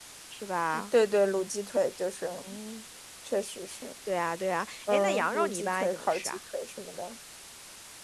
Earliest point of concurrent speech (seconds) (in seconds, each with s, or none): 4.9 s